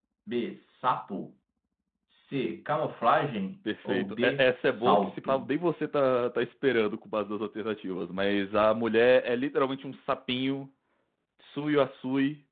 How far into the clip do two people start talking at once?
4 s

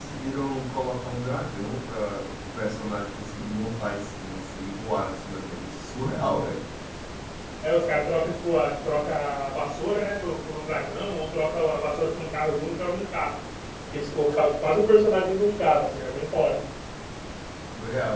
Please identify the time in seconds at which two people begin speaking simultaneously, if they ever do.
none

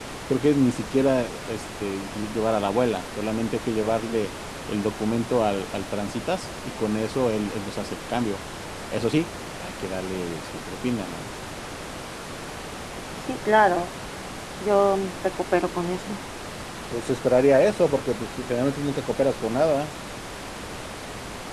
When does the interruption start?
none

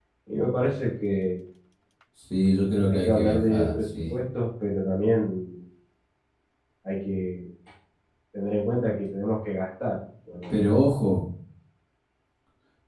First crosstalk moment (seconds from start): 3 s

